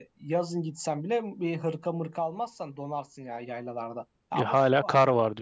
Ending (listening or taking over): taking over